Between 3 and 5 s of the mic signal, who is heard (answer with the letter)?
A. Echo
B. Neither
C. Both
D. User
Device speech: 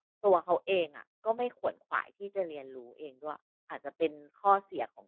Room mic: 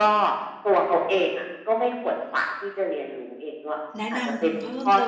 C